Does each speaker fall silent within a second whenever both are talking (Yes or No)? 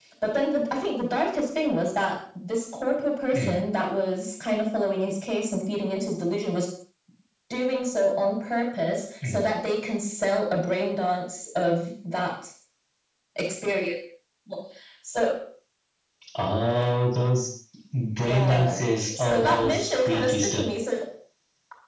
No